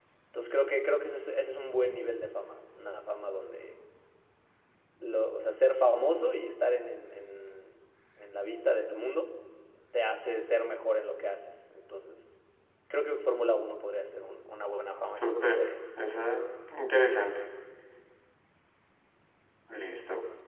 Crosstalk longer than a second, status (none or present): none